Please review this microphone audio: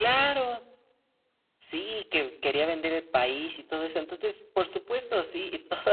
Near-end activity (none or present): none